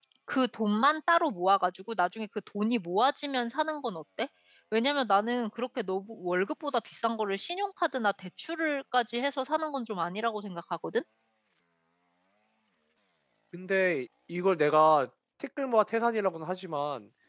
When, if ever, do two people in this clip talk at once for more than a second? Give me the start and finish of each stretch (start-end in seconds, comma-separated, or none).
none